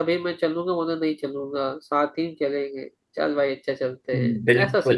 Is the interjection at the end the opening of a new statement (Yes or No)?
Yes